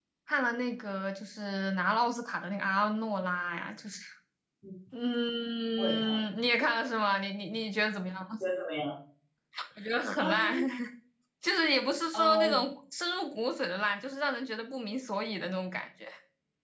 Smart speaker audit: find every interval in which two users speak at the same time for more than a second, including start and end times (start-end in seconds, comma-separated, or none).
none